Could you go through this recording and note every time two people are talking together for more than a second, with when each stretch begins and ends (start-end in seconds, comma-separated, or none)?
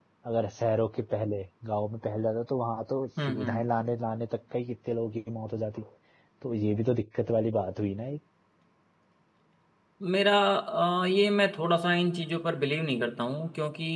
none